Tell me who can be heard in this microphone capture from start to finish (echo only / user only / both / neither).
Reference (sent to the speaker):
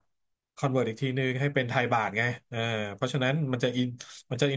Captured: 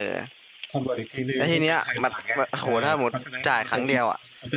both